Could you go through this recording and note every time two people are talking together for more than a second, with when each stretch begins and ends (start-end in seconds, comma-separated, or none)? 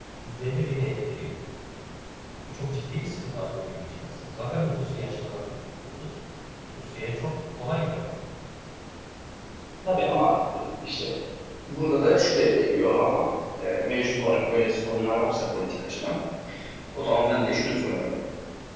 none